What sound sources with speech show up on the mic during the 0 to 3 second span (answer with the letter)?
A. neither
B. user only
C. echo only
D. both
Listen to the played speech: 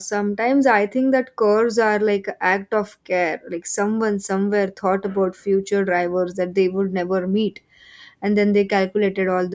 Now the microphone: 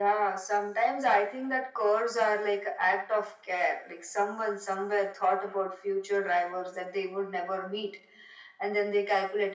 C